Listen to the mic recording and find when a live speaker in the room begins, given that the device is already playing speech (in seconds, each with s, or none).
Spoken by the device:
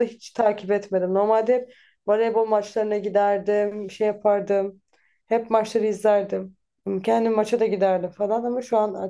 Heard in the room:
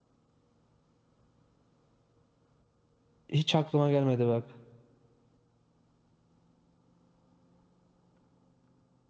3.3 s